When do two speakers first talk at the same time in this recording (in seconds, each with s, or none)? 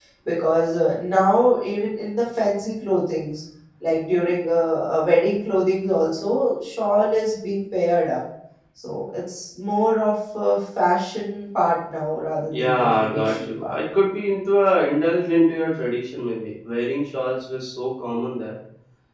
12.5 s